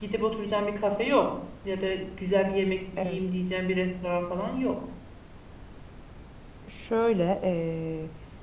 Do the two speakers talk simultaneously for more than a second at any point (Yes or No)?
No